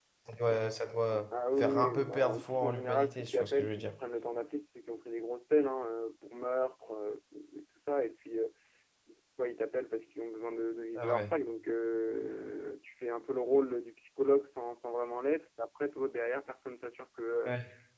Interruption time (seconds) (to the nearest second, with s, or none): 2 s